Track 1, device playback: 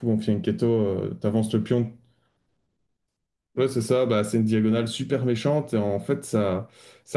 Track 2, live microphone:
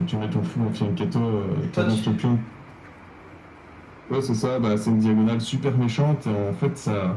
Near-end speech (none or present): present